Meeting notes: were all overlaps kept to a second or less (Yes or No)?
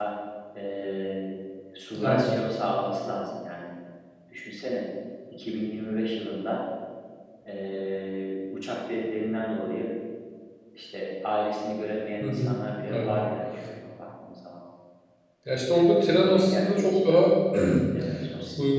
No